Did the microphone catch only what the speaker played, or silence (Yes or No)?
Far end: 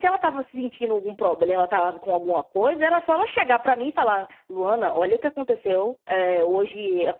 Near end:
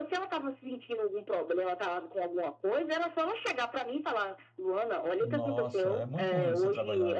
No